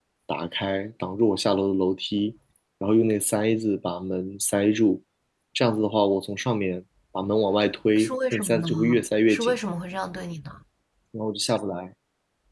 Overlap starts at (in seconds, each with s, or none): 8.0 s